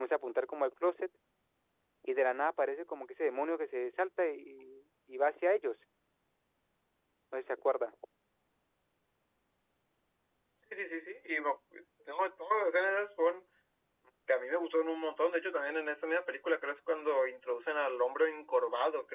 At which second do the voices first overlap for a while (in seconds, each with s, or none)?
none